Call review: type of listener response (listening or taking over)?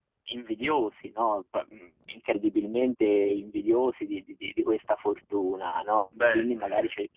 listening